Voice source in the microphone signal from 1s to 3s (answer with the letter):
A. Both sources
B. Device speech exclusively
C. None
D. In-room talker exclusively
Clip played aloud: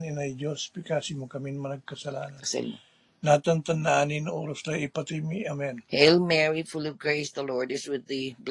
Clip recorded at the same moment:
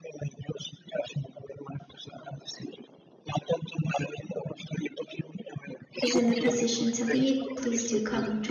B